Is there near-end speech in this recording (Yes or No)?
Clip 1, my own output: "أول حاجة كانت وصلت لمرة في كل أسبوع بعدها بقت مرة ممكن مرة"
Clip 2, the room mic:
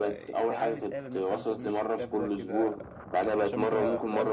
Yes